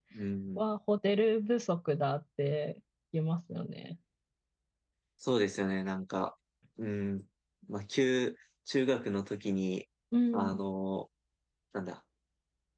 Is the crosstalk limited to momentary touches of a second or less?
Yes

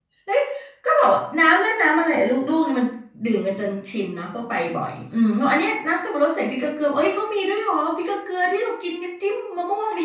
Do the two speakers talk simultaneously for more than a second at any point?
No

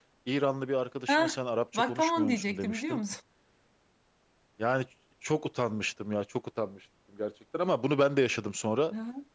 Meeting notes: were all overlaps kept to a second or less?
No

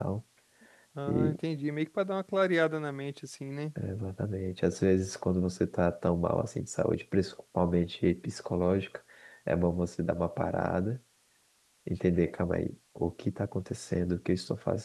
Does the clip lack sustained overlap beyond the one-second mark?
Yes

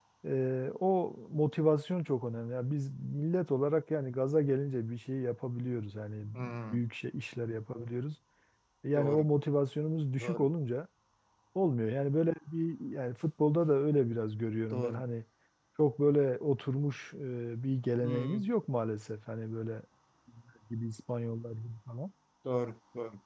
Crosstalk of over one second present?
No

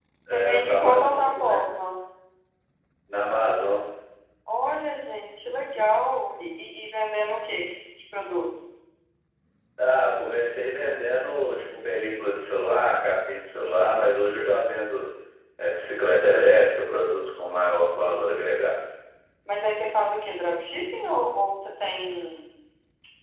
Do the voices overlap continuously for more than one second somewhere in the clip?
Yes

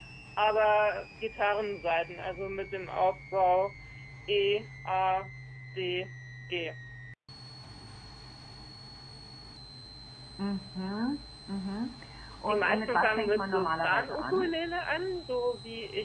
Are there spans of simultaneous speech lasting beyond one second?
Yes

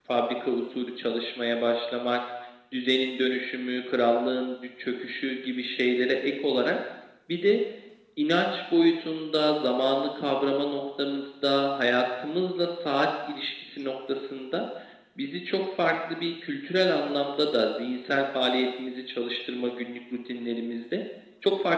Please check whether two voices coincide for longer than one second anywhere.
No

